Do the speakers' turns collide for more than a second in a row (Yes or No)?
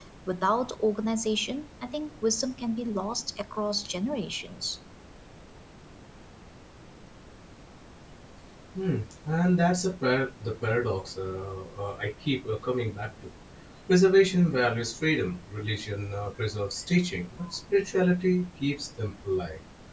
No